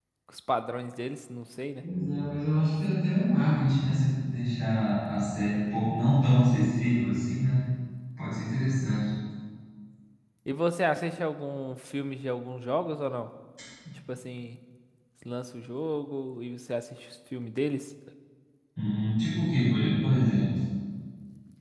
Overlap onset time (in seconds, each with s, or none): none